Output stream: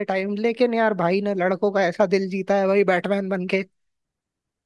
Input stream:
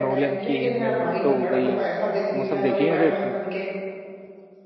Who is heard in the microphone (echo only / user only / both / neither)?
both